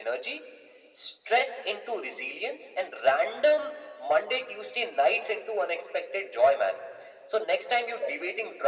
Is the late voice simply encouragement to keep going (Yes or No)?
Yes